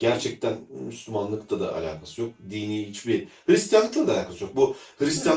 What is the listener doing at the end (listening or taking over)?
listening